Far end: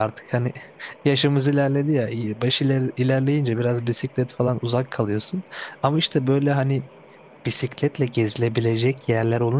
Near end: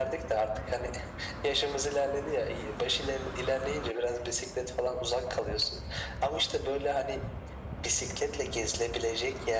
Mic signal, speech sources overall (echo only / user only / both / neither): echo only